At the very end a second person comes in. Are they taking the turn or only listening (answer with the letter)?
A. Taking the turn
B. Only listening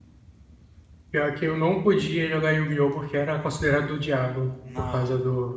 B